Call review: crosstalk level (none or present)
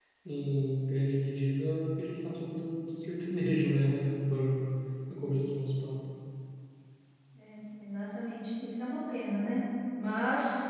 none